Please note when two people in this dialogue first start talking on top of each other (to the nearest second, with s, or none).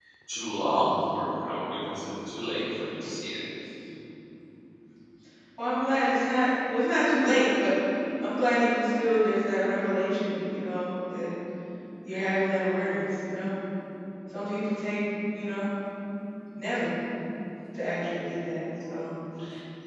none